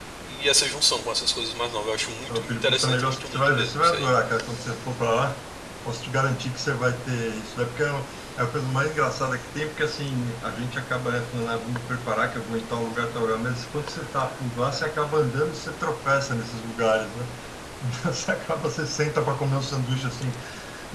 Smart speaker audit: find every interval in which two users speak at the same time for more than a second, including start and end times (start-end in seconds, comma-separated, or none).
2.3-4.1